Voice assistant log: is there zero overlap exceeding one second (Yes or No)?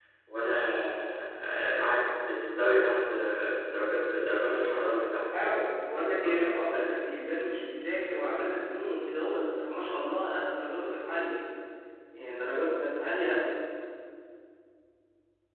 No